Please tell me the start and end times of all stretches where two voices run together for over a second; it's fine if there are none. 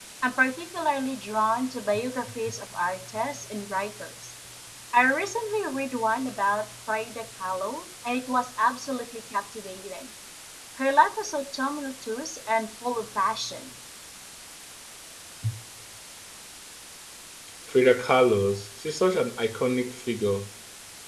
none

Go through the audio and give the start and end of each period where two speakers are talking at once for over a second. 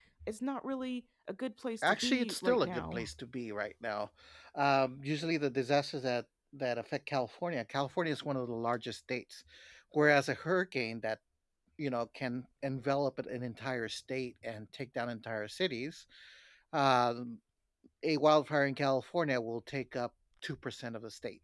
1.8-3.1

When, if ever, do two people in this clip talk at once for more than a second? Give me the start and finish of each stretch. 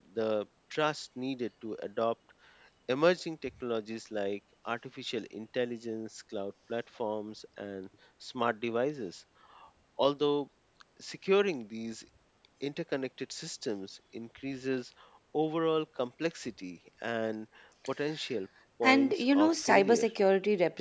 18.8-20.1

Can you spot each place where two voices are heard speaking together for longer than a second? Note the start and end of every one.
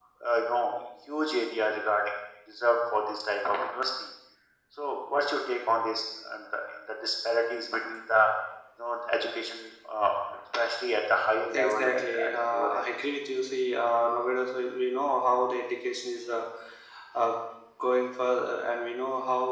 11.5-12.7

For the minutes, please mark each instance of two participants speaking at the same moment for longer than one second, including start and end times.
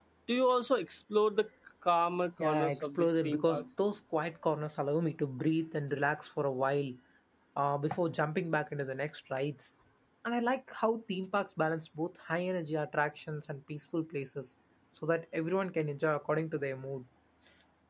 2.4-3.6

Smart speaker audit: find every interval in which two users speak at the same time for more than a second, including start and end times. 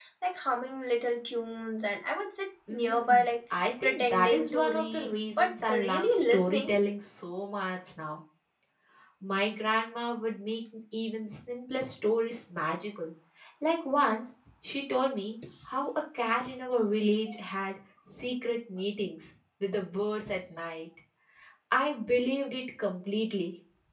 2.7-6.8

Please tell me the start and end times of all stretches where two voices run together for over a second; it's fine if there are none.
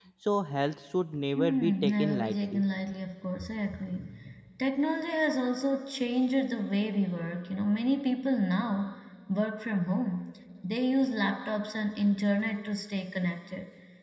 1.4-2.6

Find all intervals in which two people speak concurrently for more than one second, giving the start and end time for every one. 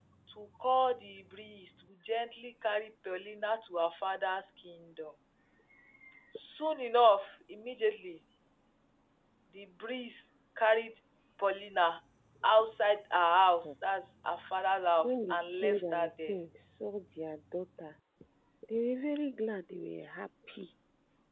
15.0-16.4

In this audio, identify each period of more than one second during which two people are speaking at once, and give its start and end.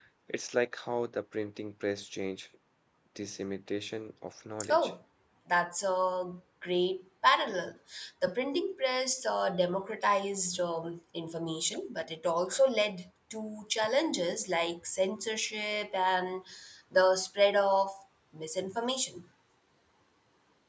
none

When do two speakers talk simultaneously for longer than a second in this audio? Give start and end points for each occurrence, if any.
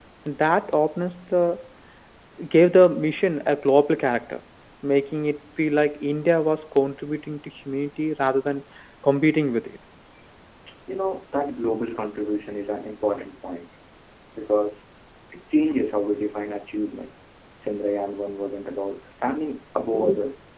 none

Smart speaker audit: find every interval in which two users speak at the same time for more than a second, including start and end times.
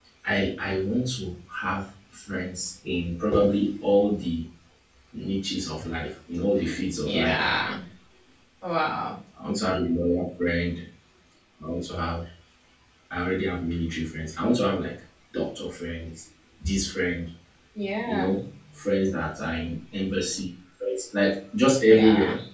none

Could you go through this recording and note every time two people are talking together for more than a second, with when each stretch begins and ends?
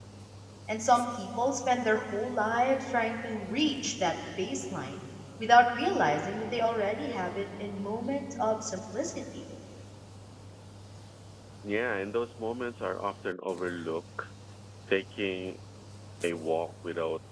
none

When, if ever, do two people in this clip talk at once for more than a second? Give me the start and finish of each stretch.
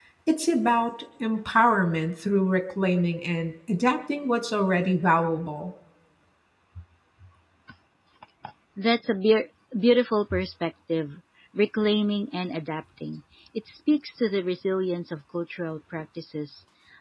none

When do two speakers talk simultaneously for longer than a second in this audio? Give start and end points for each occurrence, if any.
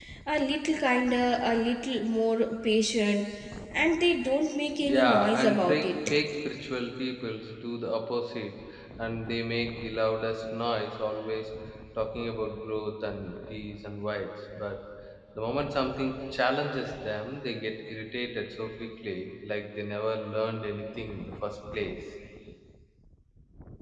4.8-6.1

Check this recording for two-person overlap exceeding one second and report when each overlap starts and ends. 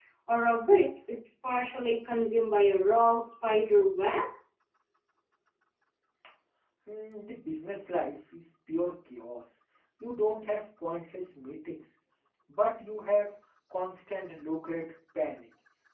none

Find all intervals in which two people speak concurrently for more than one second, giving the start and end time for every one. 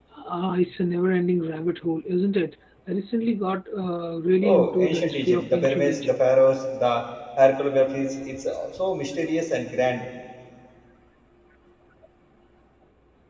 4.4-6.2

